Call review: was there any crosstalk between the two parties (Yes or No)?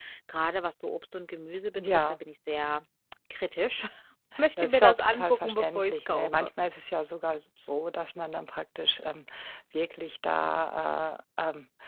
Yes